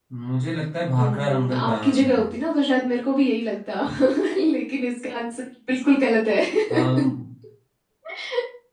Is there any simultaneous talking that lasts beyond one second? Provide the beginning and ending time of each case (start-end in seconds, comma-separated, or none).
1.0-2.2